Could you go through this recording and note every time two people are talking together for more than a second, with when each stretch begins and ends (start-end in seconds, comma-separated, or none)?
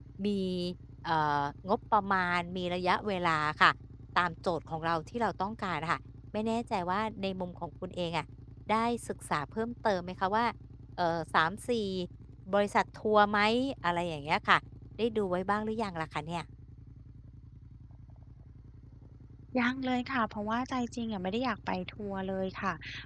none